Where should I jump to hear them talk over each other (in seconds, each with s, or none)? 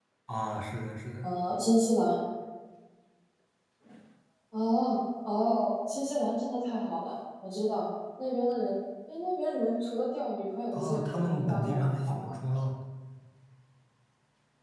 10.7 s